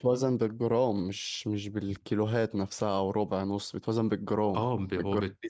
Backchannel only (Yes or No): No